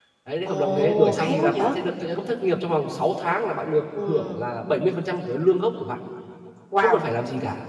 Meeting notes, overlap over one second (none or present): present